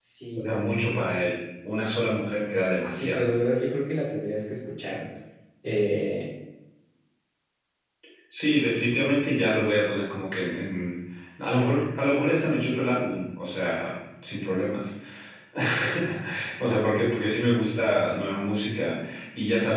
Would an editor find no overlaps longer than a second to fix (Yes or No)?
Yes